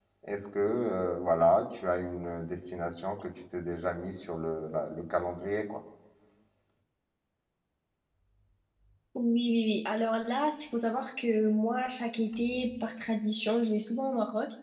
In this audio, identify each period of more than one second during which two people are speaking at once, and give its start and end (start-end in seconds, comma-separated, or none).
none